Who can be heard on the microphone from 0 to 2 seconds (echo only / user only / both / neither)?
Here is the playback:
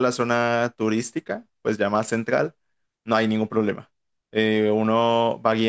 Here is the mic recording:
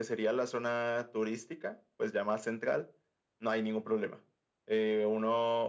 echo only